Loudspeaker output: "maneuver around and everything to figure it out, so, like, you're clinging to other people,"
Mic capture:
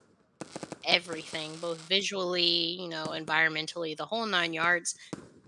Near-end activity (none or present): present